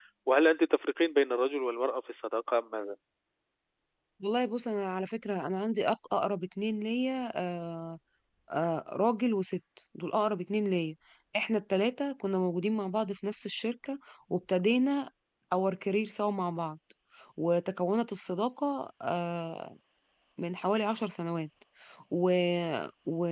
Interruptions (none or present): none